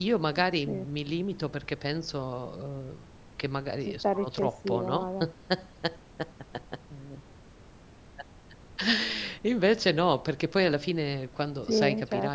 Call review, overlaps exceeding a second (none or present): present